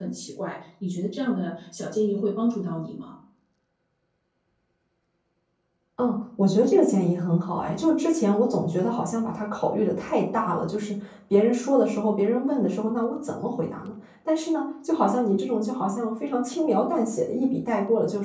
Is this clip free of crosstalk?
Yes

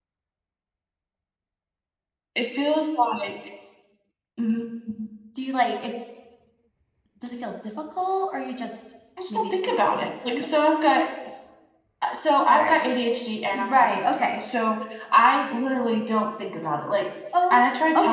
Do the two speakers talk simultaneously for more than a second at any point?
Yes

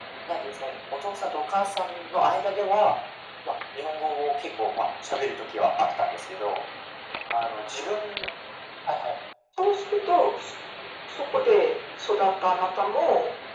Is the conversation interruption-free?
Yes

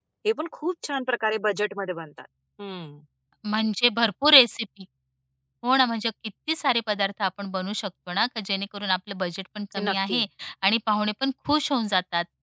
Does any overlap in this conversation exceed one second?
No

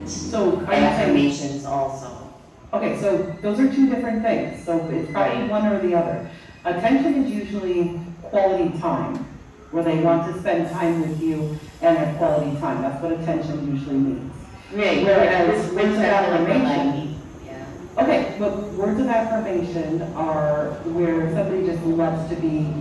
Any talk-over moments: Yes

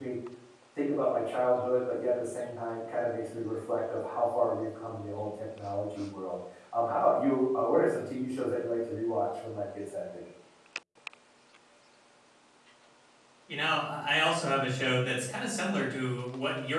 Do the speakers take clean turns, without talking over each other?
Yes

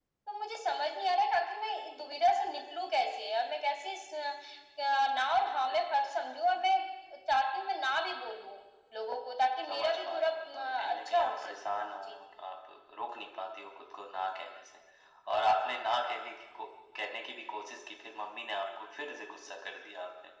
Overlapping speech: Yes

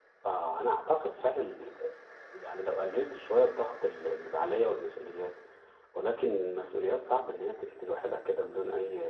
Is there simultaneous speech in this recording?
No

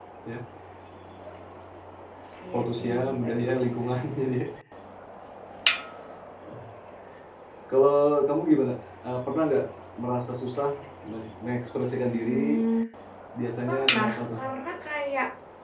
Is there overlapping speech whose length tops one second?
Yes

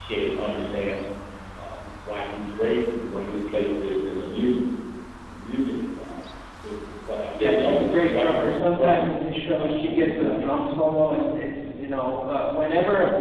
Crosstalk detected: Yes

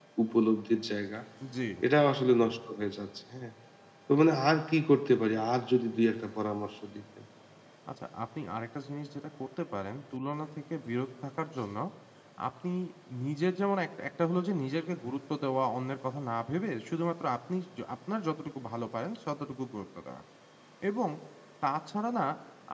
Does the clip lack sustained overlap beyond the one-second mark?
Yes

